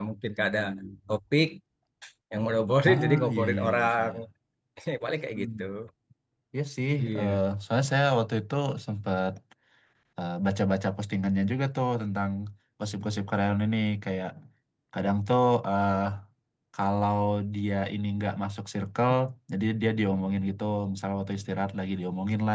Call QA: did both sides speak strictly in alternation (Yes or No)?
No